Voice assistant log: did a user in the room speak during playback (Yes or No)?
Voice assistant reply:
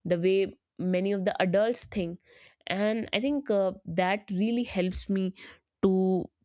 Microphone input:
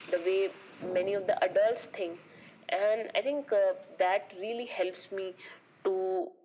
No